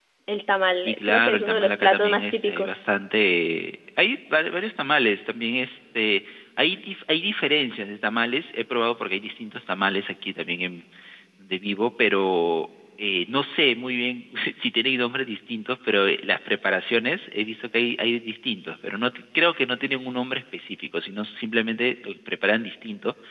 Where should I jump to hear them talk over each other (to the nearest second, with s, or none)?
1 s